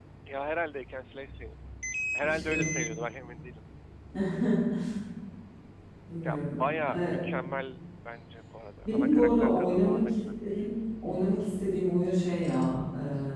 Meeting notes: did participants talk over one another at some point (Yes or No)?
Yes